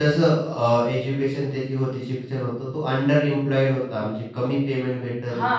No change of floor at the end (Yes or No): No